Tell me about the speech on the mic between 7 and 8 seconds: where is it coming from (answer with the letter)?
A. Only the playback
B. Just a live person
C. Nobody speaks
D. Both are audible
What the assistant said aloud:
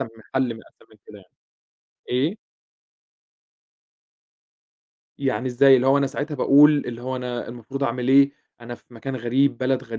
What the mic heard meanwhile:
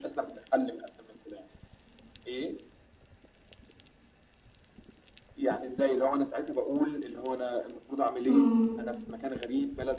A